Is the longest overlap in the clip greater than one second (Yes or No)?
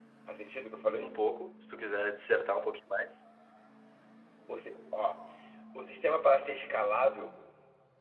No